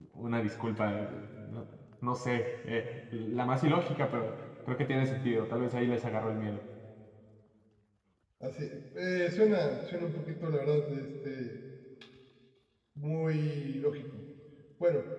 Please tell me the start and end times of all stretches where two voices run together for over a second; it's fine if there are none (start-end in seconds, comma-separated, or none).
none